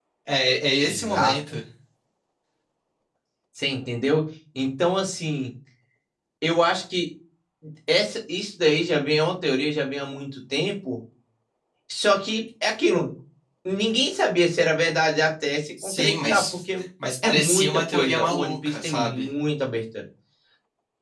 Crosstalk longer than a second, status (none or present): present